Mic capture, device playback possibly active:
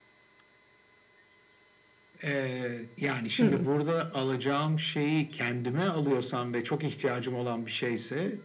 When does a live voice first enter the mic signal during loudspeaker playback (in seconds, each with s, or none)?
3.4 s